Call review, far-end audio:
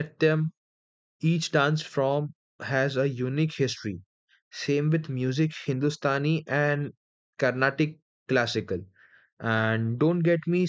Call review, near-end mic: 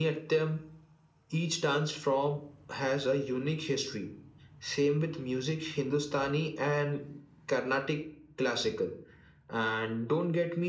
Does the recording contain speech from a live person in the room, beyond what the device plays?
No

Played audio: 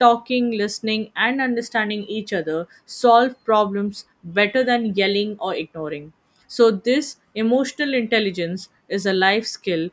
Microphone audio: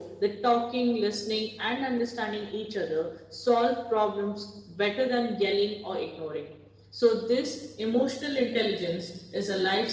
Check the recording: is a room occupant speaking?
No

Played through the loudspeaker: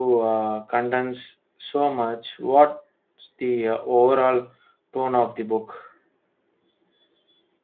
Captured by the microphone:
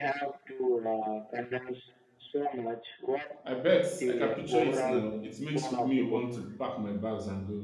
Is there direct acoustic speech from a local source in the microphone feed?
Yes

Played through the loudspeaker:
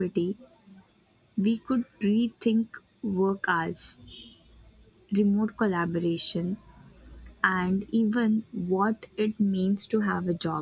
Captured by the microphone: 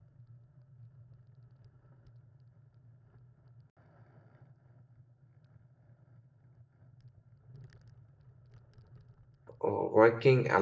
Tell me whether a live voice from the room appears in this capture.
Yes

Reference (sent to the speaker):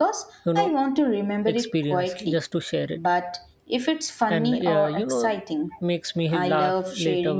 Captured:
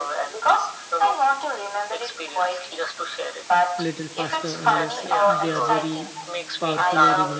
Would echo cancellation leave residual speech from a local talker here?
Yes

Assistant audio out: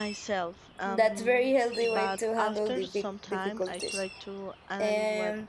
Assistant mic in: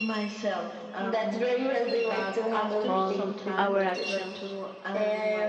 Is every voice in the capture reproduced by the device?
No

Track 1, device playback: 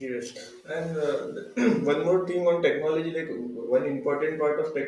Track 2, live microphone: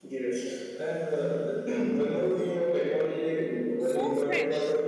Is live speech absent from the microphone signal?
No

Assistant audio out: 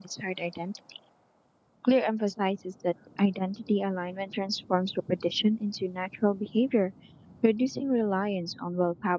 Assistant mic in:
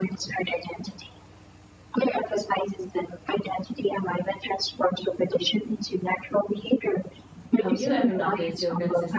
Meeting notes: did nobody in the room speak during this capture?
No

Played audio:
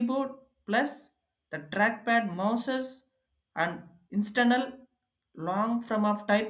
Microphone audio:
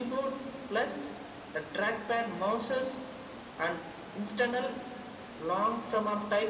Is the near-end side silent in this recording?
Yes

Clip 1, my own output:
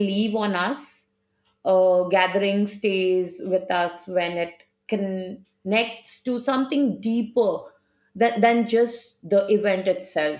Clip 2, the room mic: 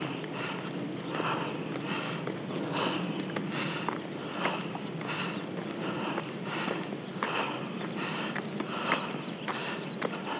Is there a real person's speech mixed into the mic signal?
No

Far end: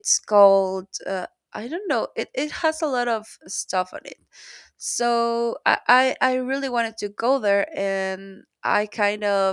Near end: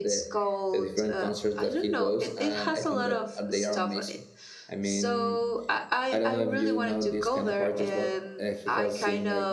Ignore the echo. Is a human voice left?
Yes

